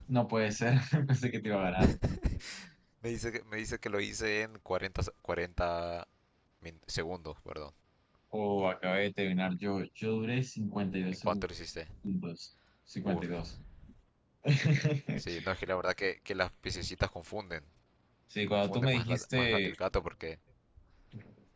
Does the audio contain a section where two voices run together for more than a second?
Yes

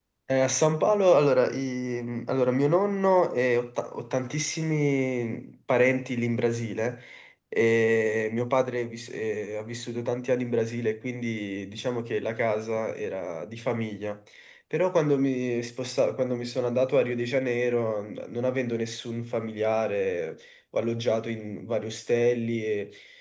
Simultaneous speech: No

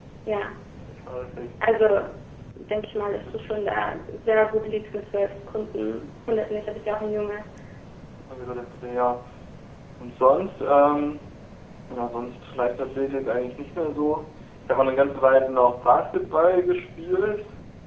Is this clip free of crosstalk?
Yes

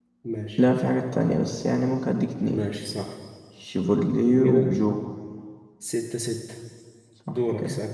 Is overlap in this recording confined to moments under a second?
Yes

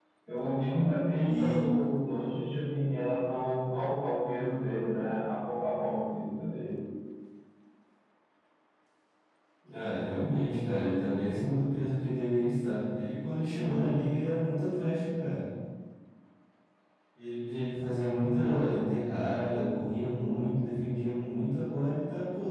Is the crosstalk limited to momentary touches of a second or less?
Yes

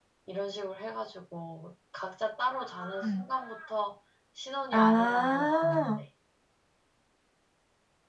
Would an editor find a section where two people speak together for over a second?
Yes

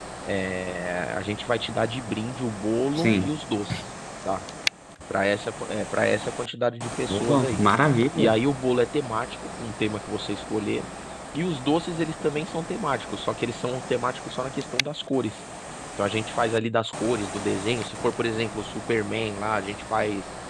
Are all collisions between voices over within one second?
Yes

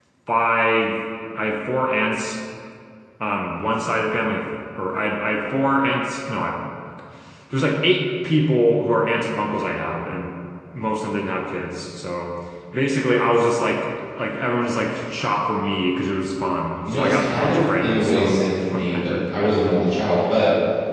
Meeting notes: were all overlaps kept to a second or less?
No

